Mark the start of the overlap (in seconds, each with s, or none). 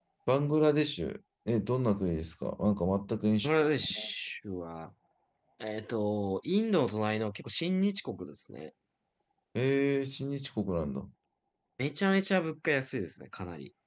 none